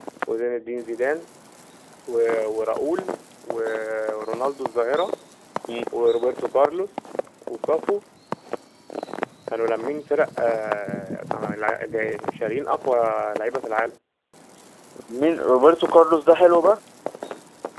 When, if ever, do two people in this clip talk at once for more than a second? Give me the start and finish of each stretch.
none

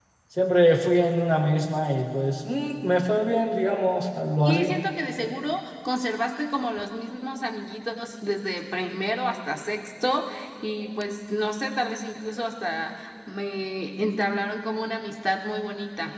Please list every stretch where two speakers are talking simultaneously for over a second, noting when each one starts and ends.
none

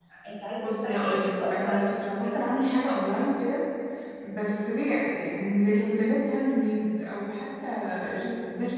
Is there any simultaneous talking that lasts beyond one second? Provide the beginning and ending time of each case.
0.6-2.4

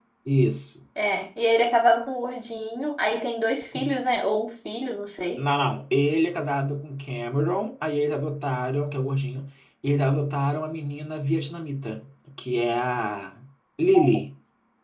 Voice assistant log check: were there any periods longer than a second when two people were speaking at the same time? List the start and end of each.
none

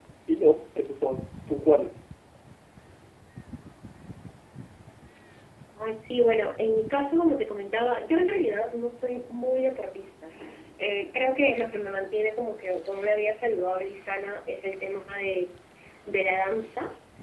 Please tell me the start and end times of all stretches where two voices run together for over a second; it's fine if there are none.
none

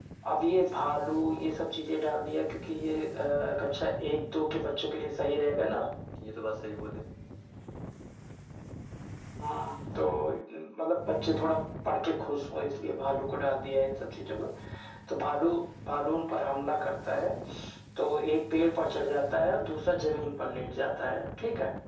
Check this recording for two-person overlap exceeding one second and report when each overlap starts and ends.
none

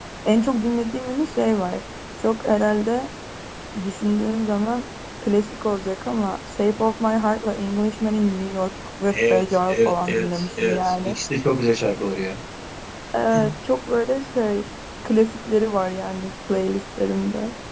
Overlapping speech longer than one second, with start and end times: 9.1-11.2

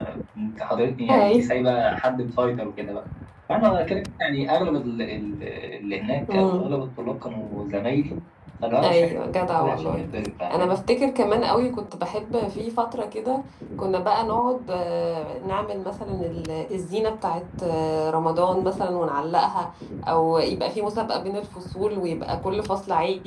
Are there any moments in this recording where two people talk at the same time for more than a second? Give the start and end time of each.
8.8-10.1

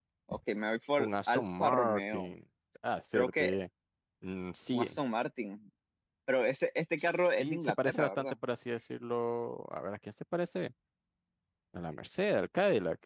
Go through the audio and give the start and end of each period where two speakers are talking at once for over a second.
1.0-2.3, 7.0-8.3

